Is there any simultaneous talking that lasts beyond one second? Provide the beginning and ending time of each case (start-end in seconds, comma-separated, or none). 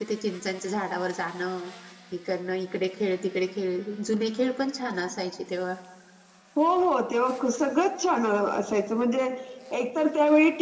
none